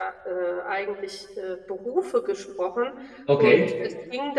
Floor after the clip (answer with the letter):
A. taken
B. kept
B